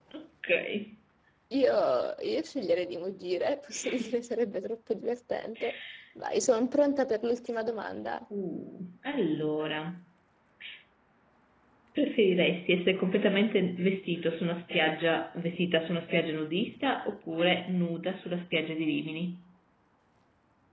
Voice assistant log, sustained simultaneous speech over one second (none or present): none